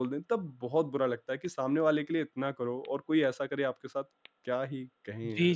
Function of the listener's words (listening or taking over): taking over